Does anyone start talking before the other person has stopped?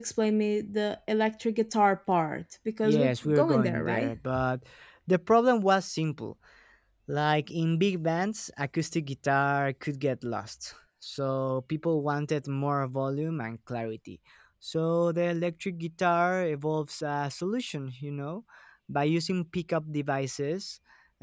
Yes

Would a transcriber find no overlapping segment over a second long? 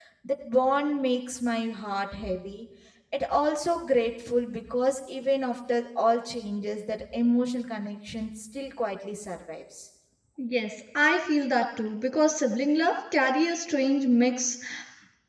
Yes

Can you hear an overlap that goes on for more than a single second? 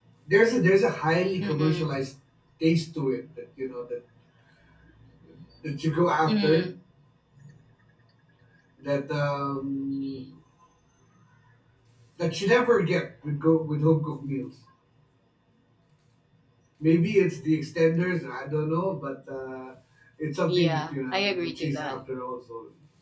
Yes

